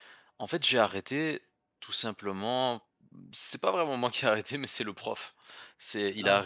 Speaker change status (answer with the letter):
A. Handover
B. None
B